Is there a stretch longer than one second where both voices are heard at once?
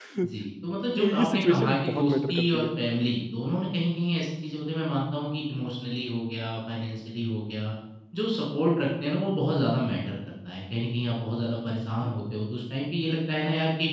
Yes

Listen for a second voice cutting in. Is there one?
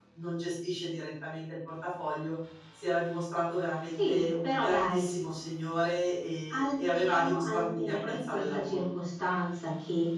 Yes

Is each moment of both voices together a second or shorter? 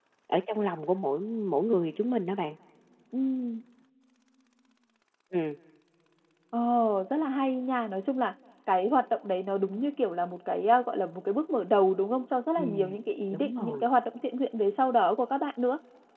Yes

